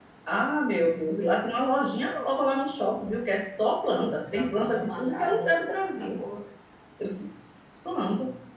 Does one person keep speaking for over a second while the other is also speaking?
Yes, from 4.0 s

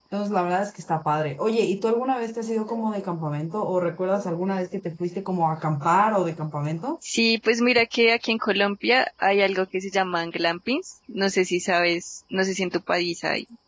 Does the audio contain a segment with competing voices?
No

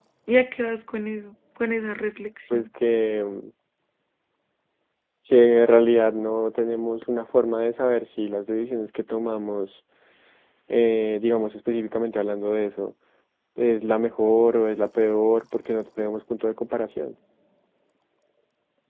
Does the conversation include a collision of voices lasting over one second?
No

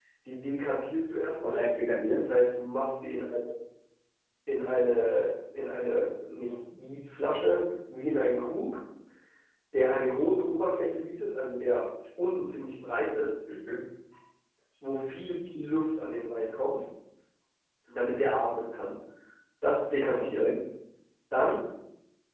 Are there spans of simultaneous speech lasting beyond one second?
No

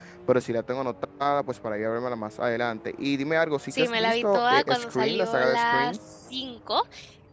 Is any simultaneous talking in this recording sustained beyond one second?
Yes, from 3.7 s

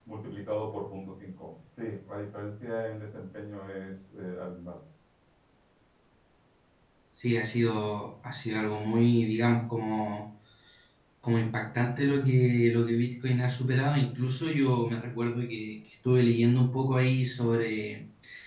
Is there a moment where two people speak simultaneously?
No

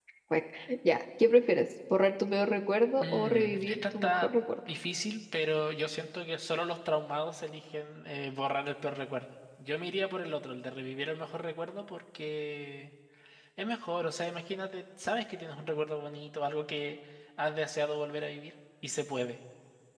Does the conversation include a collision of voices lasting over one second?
Yes, from 3.0 s

